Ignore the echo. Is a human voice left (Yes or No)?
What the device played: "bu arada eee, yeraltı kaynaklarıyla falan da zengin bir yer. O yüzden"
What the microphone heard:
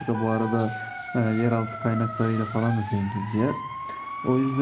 No